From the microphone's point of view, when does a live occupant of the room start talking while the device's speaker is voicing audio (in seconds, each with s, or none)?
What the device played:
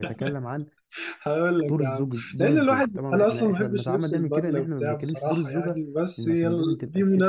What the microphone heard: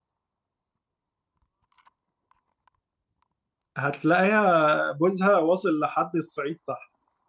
3.8 s